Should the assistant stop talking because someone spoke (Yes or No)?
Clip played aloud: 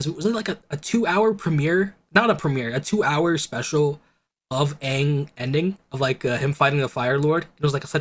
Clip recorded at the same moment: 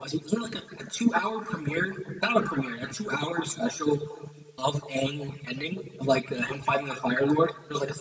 No